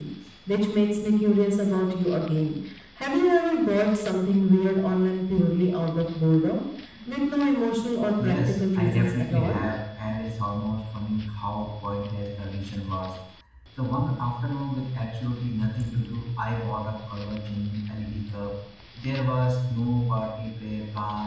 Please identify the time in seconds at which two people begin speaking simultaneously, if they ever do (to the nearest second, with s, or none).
8 s